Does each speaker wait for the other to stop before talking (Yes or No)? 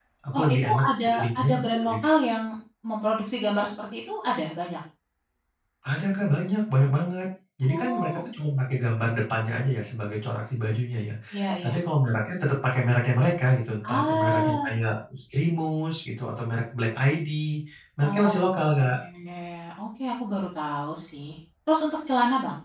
No